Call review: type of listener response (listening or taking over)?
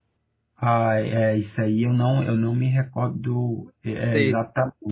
listening